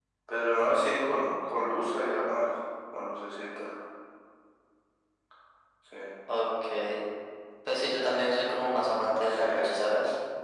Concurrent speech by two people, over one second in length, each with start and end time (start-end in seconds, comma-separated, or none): none